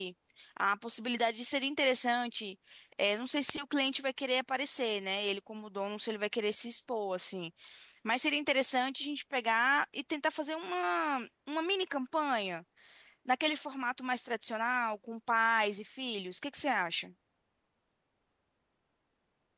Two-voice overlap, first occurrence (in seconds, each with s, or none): none